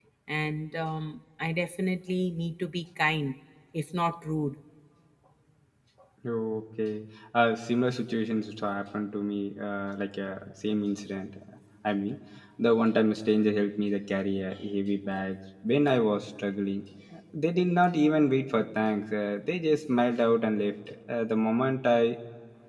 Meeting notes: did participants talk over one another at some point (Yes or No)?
No